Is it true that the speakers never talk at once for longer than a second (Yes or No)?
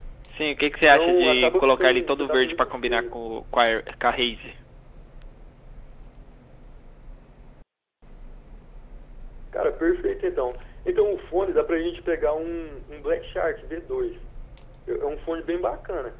No